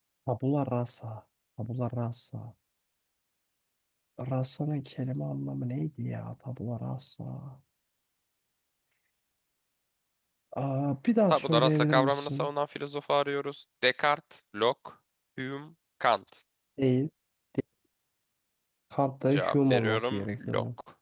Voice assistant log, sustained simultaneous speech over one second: present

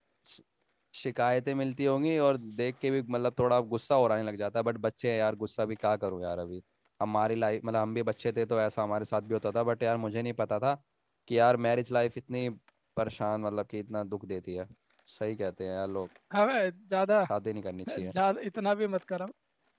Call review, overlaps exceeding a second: none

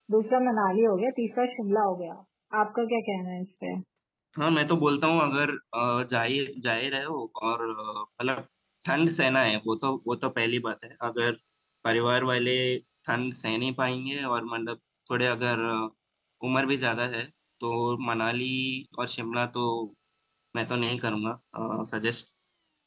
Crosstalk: none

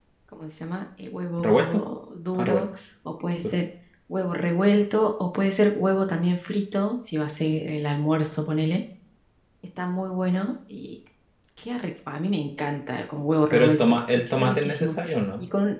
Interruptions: present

